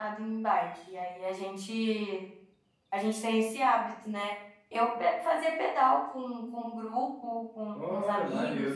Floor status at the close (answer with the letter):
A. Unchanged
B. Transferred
B